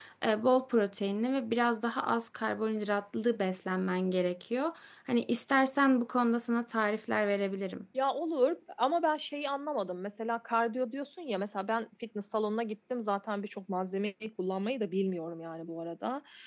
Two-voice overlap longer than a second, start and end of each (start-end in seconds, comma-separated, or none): none